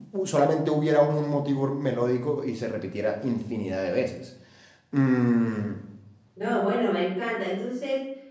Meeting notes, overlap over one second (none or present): none